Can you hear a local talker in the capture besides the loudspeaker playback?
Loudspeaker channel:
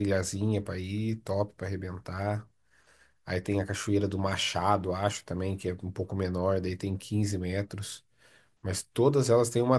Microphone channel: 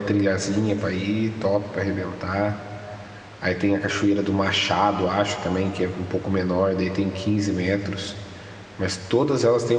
No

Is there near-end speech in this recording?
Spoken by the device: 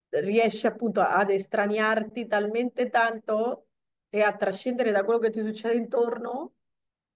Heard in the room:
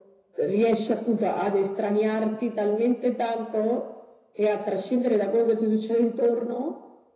No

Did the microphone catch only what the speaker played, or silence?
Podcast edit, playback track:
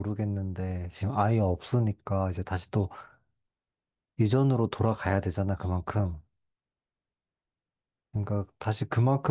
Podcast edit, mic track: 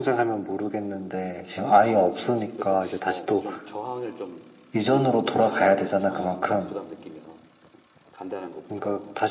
No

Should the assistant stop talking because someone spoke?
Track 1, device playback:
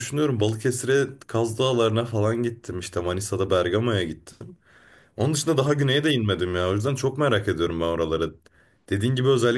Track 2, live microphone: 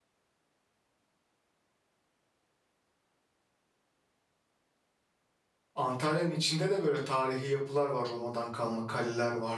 Yes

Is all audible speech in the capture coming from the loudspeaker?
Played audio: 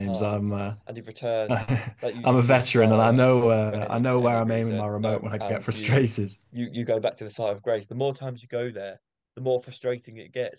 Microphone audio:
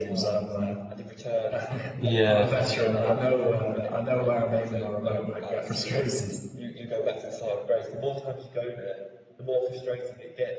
No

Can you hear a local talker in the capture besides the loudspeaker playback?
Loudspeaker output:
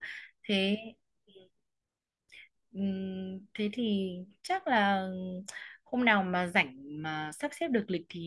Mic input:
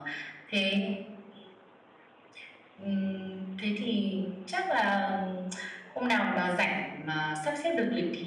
No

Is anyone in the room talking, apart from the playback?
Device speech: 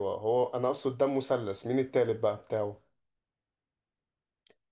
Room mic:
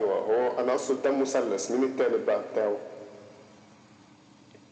No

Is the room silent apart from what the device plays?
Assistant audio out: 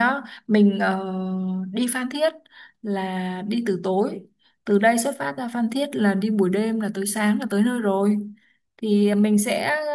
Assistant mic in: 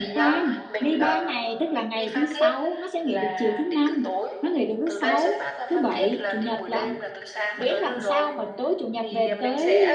No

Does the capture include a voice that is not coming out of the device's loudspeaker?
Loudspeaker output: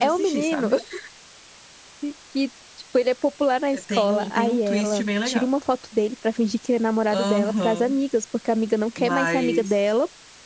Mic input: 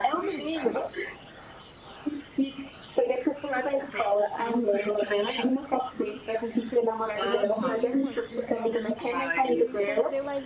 Yes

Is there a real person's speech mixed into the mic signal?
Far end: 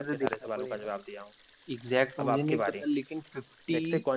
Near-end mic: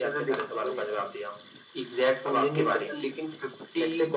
No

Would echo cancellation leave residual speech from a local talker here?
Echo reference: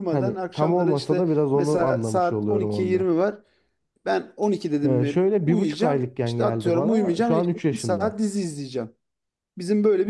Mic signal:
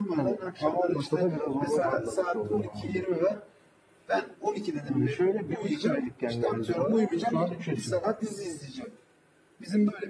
No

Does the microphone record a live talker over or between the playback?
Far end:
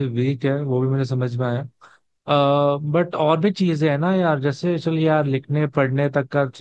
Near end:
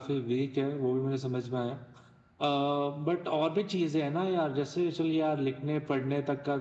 No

